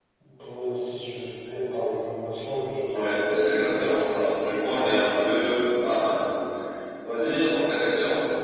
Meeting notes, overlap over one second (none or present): present